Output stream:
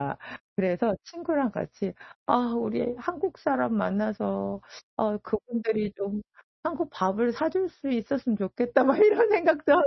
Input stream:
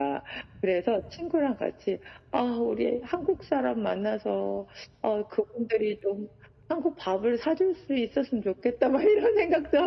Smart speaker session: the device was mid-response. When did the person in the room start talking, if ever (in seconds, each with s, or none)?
none